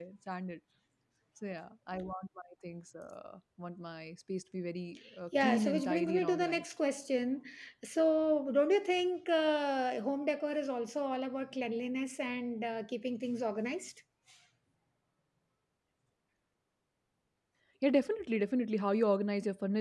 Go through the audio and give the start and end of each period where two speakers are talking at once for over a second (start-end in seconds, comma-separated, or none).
5.4-6.7